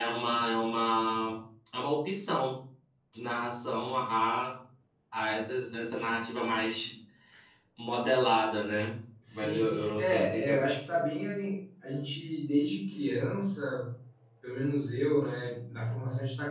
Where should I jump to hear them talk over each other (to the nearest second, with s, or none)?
9 s